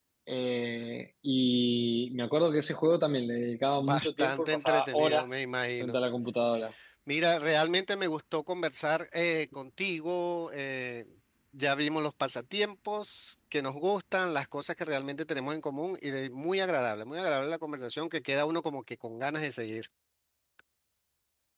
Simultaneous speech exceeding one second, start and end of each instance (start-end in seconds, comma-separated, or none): 3.8-5.3